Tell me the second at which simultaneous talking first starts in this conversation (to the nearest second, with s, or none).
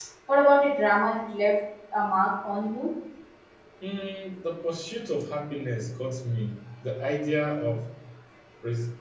none